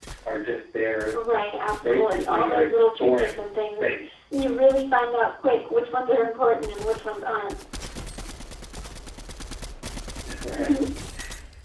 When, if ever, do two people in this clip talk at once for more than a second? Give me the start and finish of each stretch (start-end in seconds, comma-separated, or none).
1.8-3.9